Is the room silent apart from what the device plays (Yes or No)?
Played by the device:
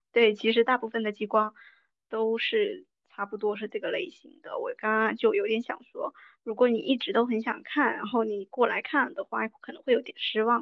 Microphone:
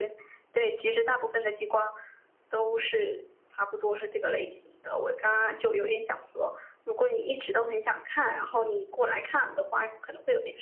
Yes